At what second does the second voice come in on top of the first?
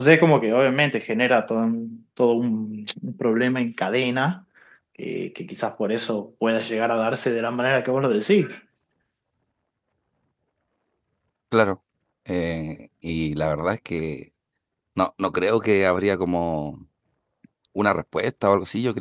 none

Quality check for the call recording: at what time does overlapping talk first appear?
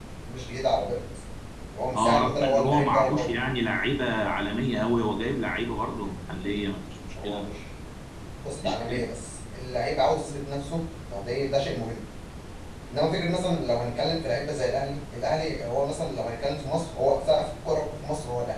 2 s

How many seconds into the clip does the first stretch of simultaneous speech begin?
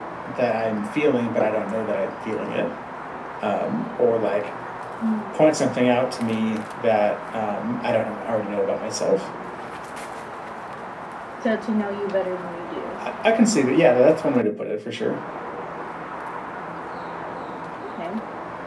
none

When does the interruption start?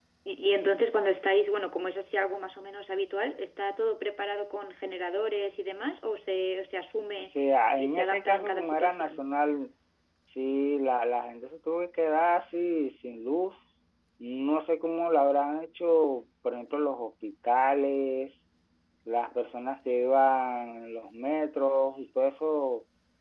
8 s

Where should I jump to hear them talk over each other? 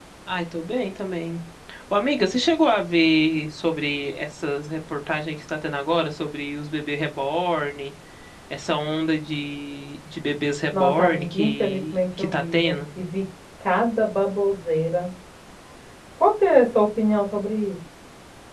11 s

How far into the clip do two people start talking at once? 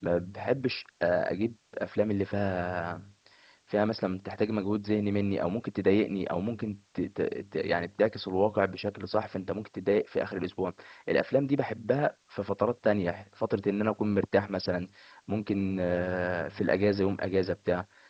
none

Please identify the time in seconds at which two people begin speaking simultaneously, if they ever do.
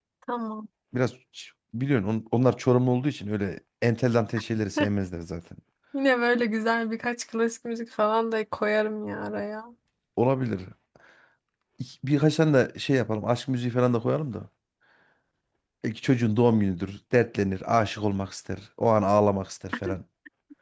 none

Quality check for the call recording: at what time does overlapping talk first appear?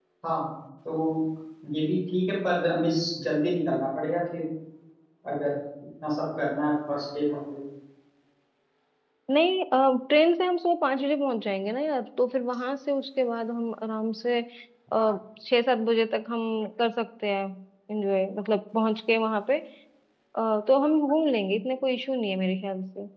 none

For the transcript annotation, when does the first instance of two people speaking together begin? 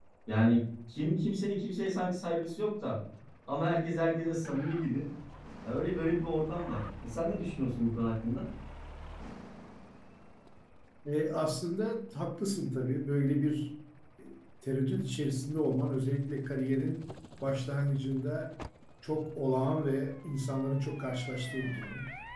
none

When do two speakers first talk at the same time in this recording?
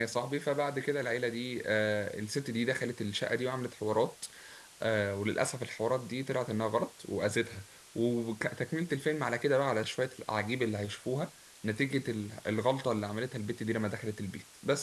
none

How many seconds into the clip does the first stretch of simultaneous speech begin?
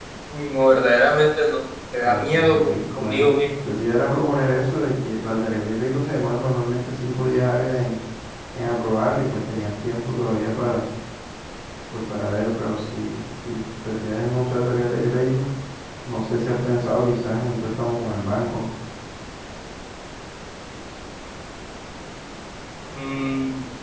2 s

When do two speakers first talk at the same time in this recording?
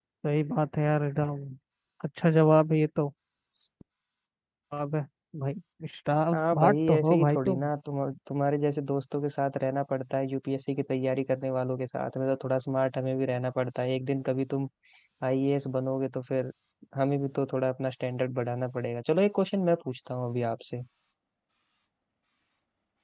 6 s

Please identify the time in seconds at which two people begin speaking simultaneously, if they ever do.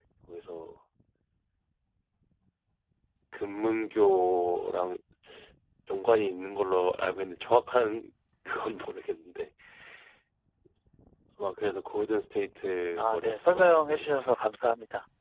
13 s

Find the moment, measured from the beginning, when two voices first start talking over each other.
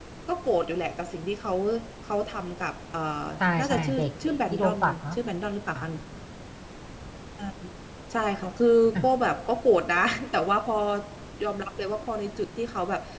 4 s

